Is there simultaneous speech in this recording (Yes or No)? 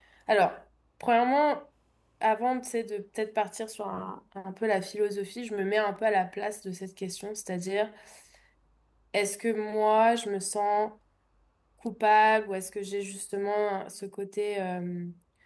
No